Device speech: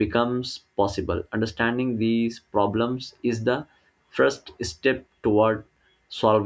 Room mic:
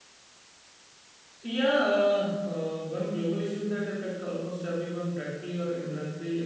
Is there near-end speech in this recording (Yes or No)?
Yes